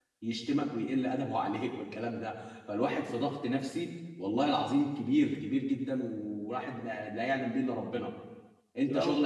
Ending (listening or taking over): listening